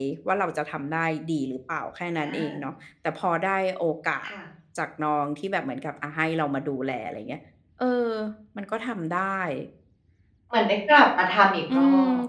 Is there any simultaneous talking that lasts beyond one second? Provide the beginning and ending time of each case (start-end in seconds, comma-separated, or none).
none